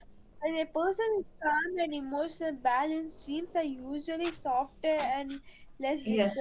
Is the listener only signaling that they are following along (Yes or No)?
No